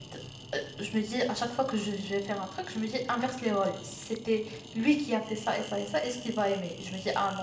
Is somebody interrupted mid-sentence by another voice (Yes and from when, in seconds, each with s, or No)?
No